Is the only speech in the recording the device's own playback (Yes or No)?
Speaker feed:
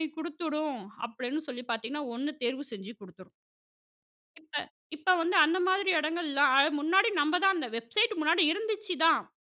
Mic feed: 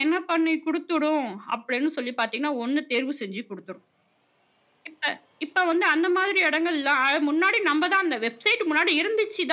Yes